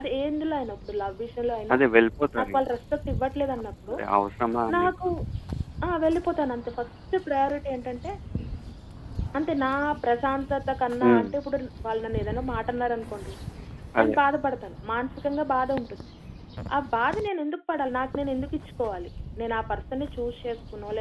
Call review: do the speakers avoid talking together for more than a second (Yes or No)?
Yes